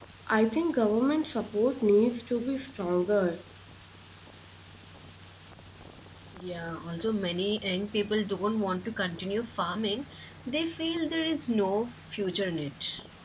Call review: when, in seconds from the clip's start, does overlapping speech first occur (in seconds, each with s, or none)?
none